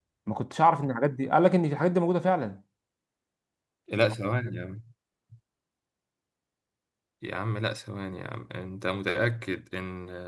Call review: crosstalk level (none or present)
none